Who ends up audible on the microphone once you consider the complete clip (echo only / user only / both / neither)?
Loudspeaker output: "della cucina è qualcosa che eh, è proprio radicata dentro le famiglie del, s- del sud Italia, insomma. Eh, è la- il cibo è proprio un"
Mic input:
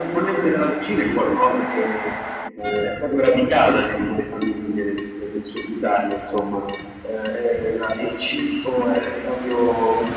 echo only